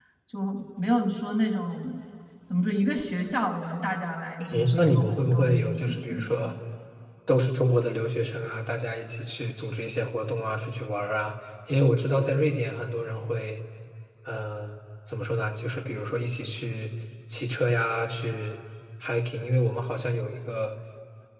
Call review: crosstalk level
present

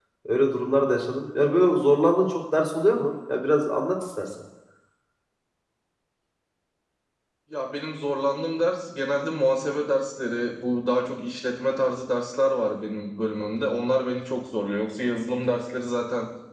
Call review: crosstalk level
none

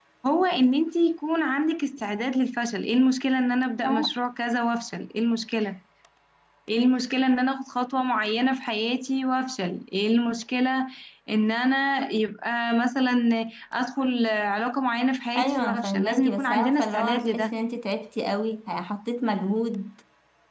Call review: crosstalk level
present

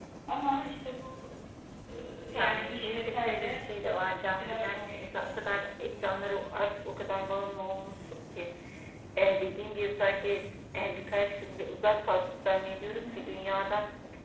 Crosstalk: present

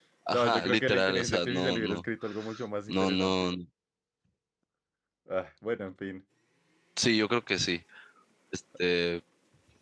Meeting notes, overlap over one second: present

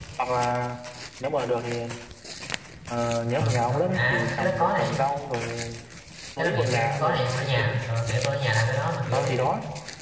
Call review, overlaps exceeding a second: present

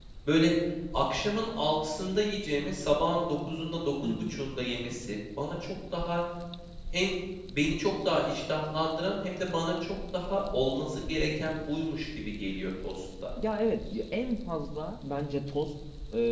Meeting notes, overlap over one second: none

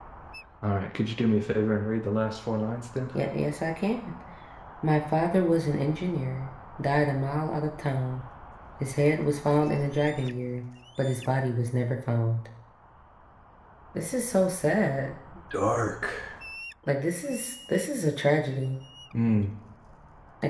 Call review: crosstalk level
none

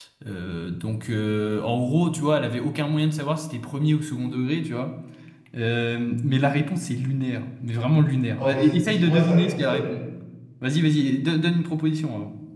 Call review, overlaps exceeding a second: present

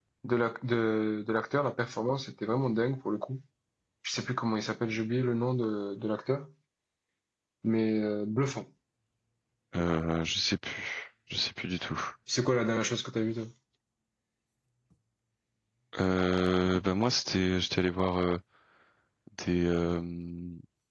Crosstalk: none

